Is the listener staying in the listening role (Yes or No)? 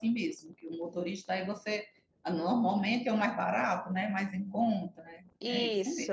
No